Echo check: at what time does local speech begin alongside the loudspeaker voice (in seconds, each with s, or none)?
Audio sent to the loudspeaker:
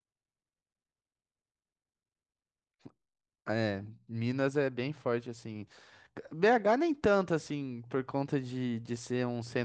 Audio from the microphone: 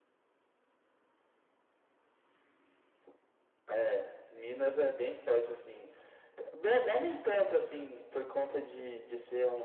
none